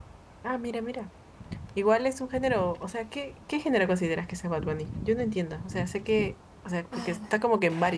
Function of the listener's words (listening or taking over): listening